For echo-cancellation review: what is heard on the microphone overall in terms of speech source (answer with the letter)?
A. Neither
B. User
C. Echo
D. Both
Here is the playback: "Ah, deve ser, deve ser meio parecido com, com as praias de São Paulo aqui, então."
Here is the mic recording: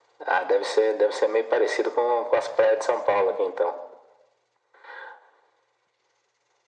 C